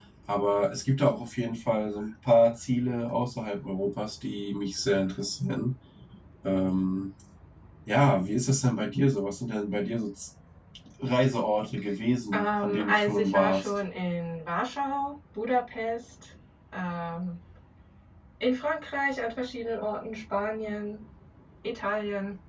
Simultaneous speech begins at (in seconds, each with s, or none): 12.3 s